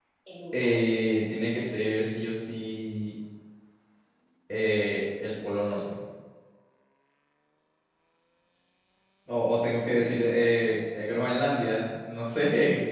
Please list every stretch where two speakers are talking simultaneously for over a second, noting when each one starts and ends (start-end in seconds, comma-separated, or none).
9.9-11.2